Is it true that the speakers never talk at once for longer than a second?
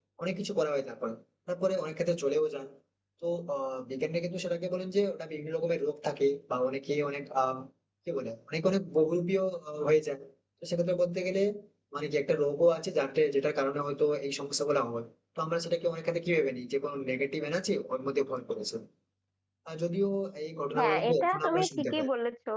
No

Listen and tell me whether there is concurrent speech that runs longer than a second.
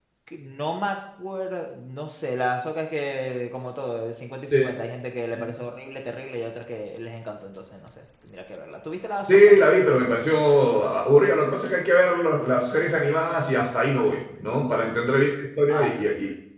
No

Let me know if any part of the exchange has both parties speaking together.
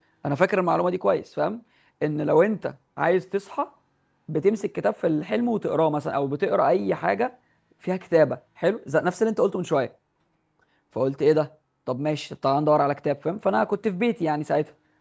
No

